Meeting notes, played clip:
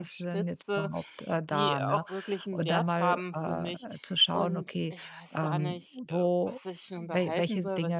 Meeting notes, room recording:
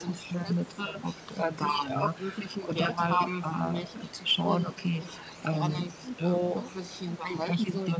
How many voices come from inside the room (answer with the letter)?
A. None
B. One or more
A